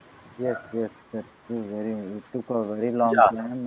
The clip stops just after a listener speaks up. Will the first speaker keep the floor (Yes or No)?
Yes